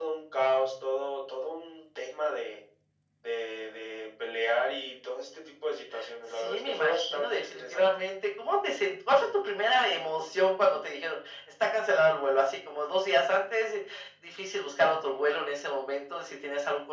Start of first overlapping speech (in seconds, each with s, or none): 6.4 s